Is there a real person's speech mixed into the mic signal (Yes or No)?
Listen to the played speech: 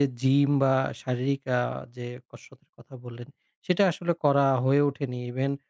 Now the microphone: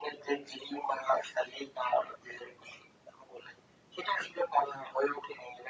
No